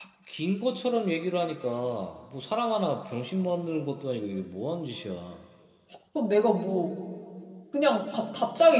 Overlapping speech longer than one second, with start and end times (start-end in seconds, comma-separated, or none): none